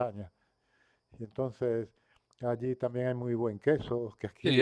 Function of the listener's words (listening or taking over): taking over